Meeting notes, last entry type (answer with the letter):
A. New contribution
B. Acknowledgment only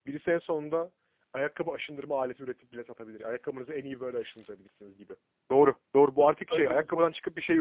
B